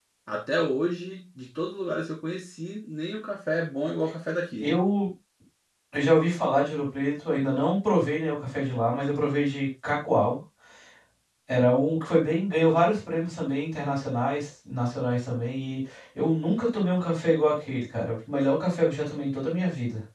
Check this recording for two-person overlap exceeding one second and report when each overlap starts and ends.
none

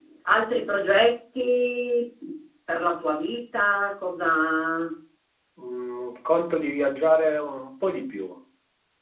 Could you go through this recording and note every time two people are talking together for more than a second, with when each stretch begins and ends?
none

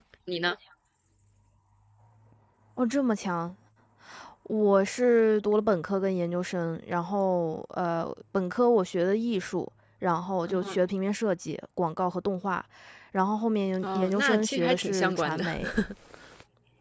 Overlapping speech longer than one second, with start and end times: 13.8-15.4

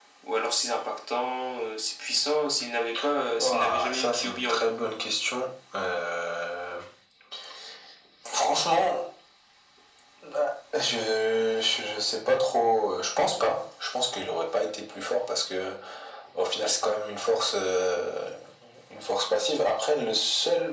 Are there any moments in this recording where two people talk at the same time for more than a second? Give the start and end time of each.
3.4-4.7

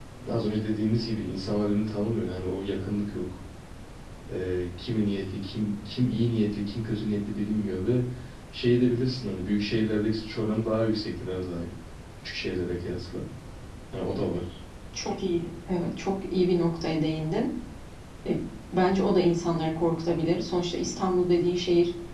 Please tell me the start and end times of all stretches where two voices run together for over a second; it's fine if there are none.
none

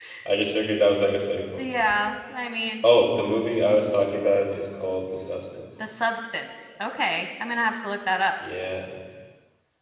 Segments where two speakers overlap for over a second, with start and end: none

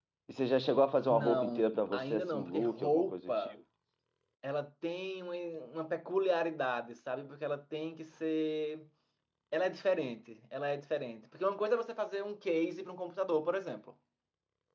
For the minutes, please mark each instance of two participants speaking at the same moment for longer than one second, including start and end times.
1.1-3.5

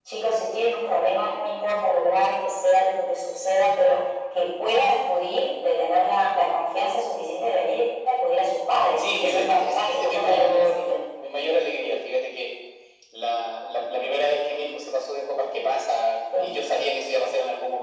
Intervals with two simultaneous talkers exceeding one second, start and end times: 9.0-10.9

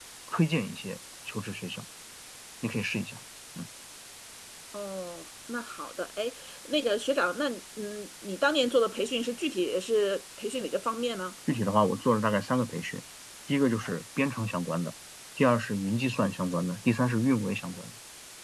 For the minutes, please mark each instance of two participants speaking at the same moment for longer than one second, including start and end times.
none

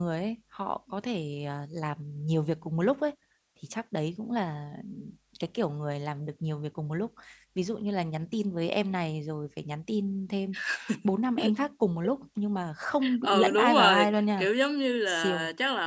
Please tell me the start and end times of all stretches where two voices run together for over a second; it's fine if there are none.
13.2-14.5

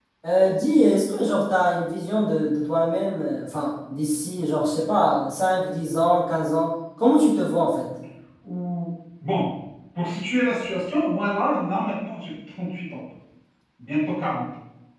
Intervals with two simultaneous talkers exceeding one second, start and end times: none

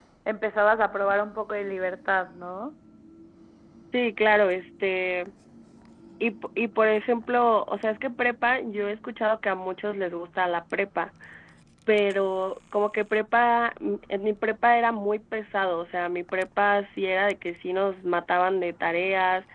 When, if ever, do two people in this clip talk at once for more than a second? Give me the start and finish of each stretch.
none

